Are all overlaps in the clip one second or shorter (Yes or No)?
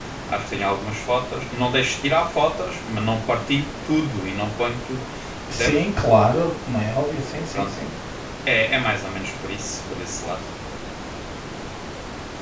Yes